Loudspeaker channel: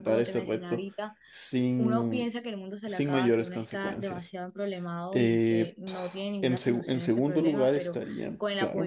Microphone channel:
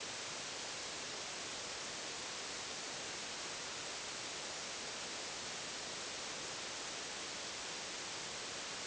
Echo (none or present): none